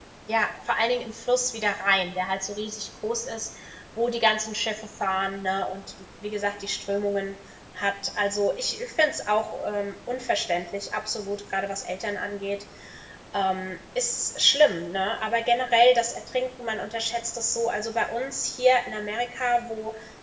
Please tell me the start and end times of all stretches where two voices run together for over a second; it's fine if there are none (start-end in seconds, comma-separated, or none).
none